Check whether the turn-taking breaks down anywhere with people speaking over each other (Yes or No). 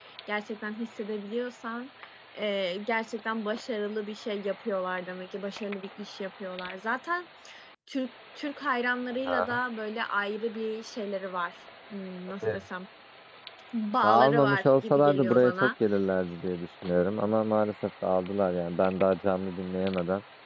Yes